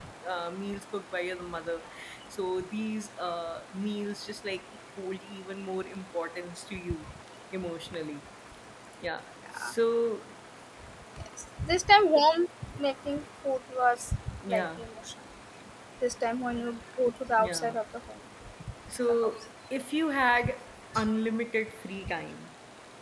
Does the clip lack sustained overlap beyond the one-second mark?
Yes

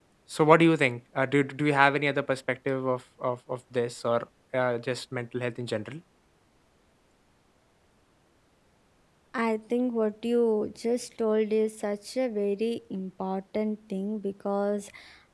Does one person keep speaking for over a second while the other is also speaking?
No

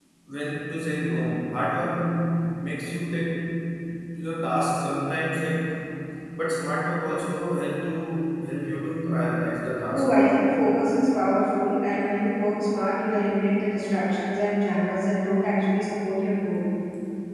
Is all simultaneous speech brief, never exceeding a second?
Yes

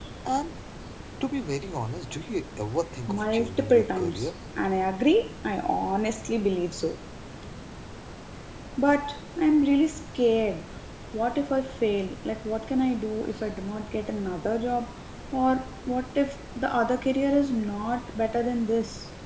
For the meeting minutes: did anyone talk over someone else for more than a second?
Yes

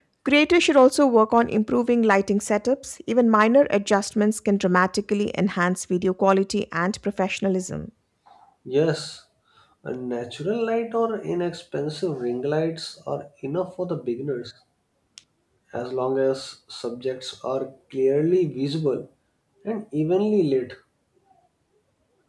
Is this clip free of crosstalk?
Yes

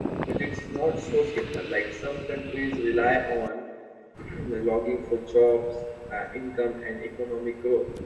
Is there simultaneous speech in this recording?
No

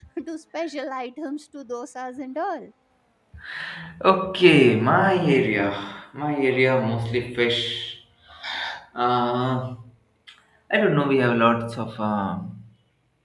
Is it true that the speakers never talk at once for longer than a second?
Yes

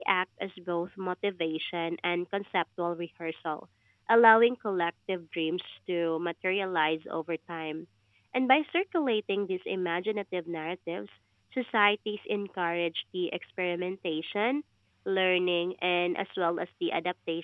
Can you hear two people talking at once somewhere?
No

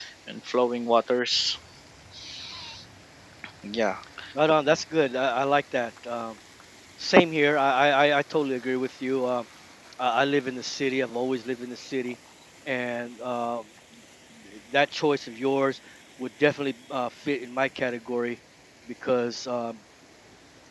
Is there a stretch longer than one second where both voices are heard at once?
No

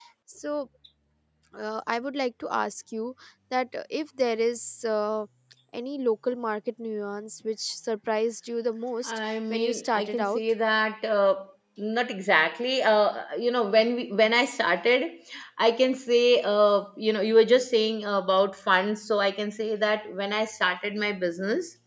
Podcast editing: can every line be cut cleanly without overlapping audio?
No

